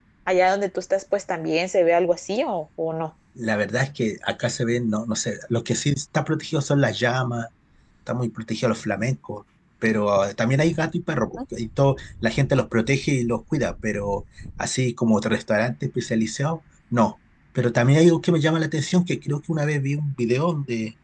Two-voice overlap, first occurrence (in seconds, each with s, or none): none